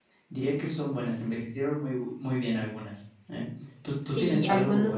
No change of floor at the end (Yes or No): No